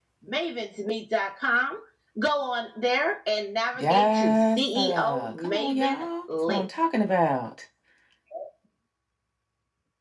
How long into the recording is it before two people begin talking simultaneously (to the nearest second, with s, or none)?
4 s